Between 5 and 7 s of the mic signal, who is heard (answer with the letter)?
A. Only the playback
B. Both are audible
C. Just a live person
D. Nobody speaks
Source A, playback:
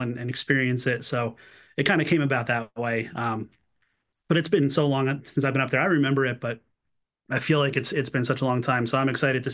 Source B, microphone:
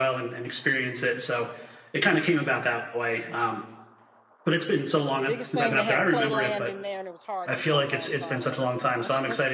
B